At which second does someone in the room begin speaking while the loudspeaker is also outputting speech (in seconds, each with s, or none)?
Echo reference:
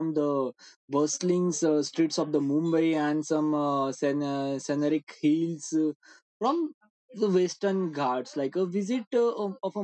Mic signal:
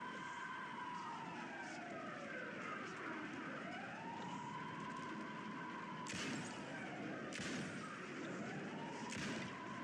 none